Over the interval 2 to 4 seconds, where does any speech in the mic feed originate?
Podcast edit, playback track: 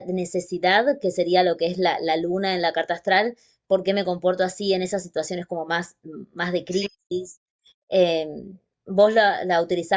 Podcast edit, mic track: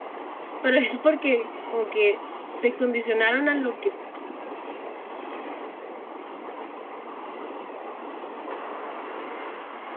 user only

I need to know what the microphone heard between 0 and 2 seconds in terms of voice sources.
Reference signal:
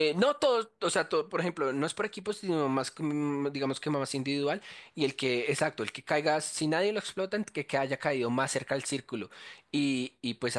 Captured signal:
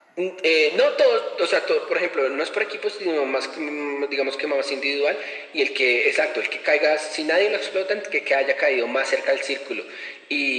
echo only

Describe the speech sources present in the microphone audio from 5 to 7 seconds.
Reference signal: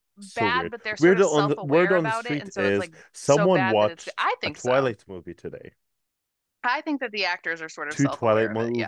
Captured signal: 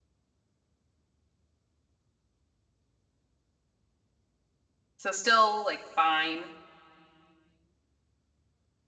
user only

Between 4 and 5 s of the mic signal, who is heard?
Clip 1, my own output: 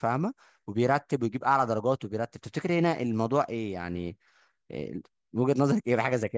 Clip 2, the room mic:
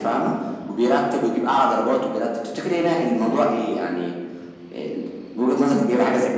echo only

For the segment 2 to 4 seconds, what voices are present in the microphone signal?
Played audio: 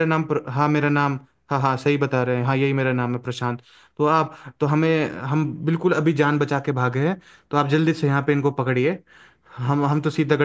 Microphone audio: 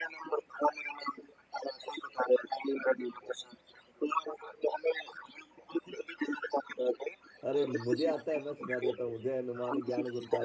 echo only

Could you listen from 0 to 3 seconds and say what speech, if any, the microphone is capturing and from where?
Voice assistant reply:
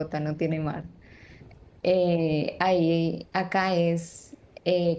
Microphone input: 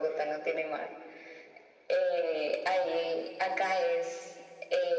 echo only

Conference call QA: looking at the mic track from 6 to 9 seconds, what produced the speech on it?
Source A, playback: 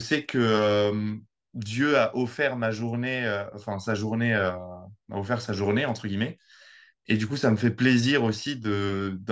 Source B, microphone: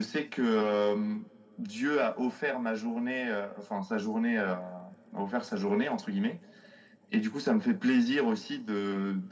echo only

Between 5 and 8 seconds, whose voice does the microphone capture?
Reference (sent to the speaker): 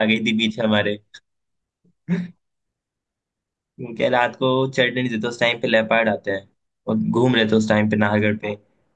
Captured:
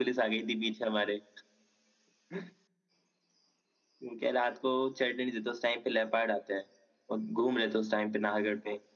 echo only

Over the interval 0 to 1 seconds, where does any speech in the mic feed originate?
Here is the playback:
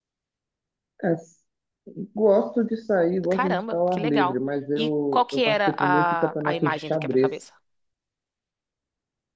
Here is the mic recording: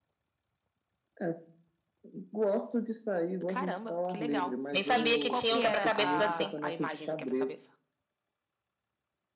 neither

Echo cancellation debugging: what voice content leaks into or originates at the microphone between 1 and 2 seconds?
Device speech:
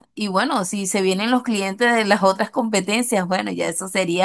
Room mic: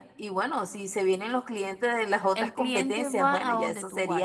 echo only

